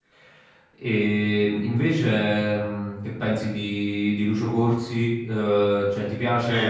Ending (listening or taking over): taking over